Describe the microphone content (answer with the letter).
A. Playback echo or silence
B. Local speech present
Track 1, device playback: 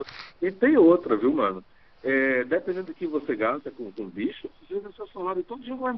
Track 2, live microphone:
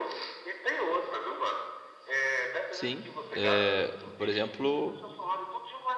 B